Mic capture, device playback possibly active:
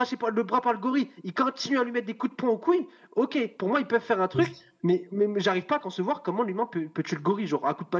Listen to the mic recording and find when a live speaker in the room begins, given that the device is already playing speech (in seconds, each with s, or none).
4.3 s